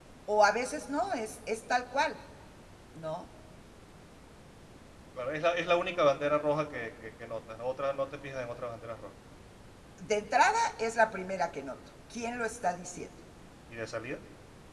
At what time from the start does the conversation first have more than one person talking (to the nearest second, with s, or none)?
none